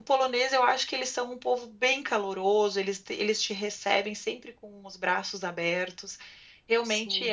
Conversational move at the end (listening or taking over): listening